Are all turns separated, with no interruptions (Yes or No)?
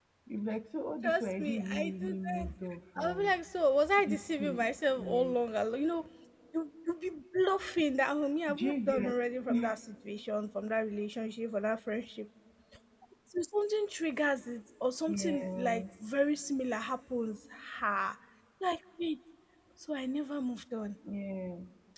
No